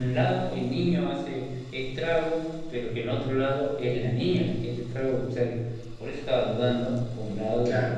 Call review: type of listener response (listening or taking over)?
taking over